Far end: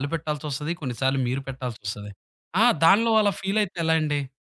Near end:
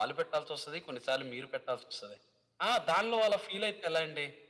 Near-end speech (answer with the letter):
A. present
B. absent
B